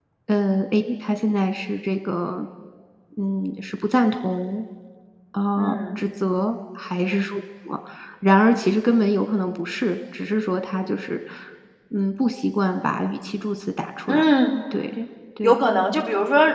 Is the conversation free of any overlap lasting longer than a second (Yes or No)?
Yes